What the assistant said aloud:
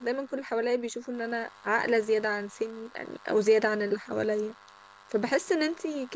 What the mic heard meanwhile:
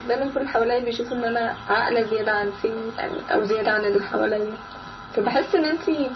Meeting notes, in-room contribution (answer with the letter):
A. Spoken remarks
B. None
B